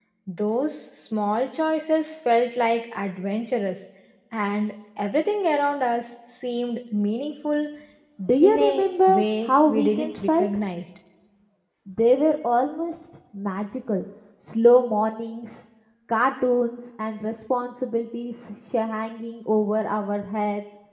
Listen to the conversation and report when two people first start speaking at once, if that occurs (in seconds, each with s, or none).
8.4 s